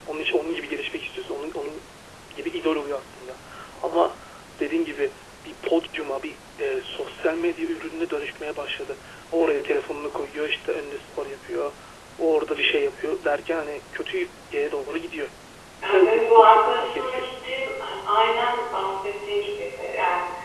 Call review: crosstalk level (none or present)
present